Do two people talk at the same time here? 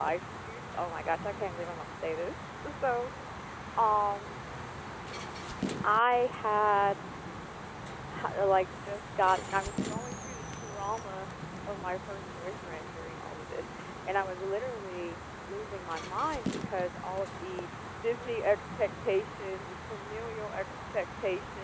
No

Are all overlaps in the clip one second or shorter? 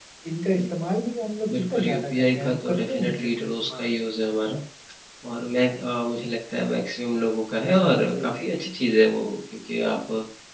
No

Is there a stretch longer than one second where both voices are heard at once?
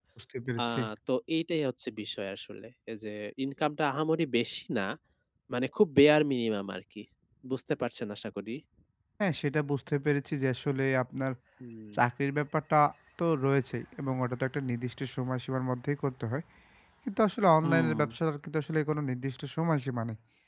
No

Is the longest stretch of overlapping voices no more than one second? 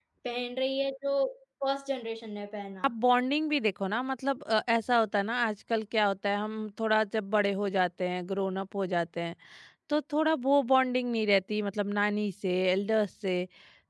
Yes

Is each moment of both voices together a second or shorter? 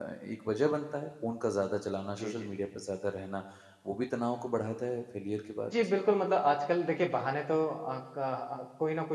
Yes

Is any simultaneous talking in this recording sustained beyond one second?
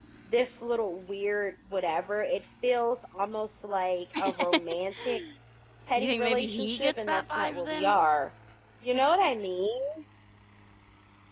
Yes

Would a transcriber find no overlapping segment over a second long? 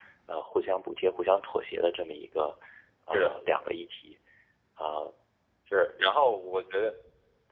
Yes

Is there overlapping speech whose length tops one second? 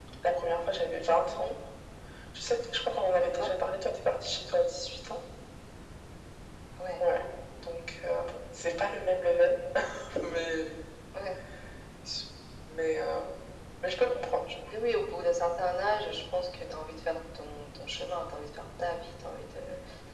No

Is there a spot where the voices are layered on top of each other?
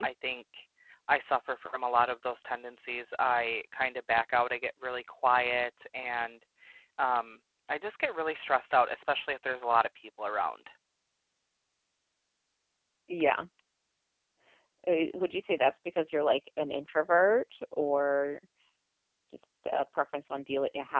No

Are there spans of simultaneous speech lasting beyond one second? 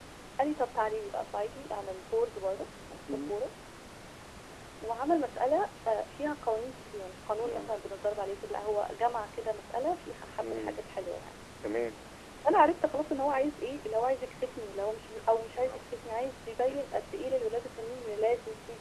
No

